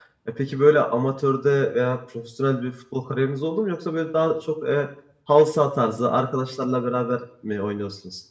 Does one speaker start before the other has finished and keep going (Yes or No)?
No